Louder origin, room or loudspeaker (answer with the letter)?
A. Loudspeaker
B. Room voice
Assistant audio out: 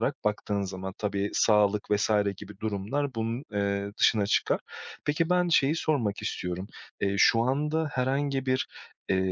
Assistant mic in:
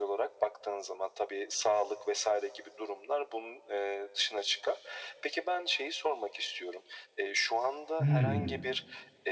B